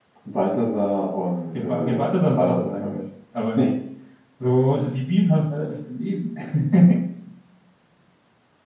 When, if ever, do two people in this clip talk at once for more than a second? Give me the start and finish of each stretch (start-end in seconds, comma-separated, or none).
1.6-3.0